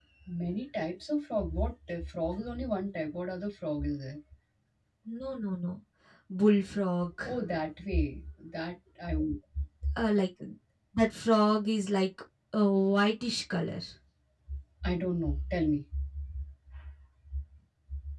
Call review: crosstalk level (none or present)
none